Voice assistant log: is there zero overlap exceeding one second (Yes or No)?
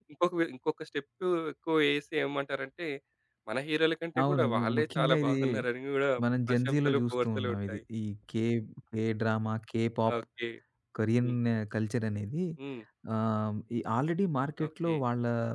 No